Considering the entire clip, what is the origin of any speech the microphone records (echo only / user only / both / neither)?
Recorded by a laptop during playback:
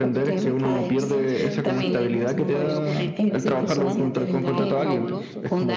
both